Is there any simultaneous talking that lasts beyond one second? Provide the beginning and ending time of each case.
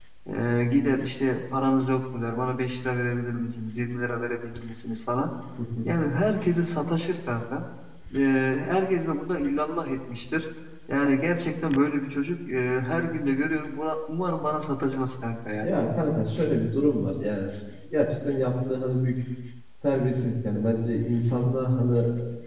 none

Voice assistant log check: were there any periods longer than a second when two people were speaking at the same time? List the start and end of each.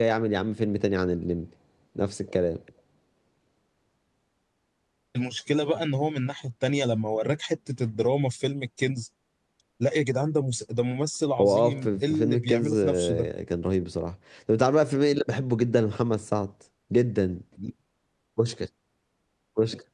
11.4-13.3

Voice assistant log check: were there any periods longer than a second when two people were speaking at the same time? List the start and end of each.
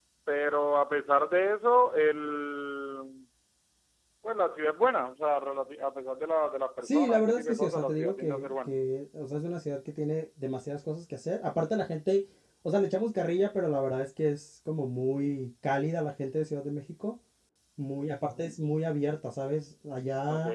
6.8-8.7

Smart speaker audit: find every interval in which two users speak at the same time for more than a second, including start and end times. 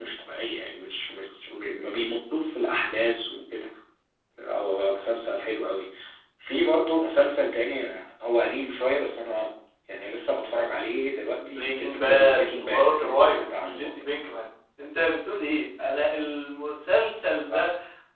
11.5-14.0

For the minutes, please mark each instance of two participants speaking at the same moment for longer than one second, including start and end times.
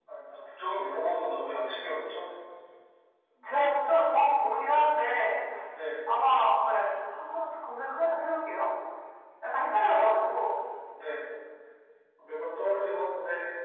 none

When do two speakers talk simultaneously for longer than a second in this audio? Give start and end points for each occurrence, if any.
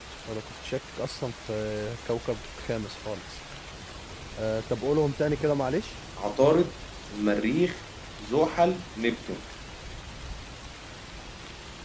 none

